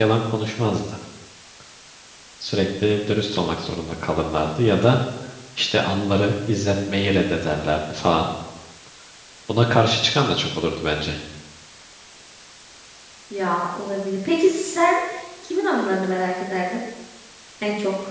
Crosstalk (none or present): none